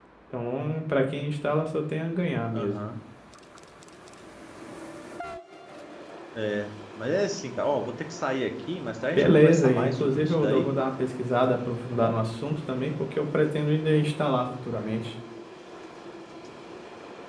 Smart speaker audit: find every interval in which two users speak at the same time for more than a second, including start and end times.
9.1-10.7

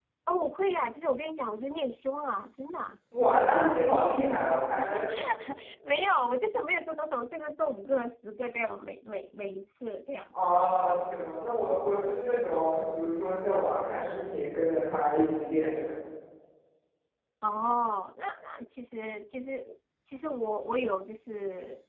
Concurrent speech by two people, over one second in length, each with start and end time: none

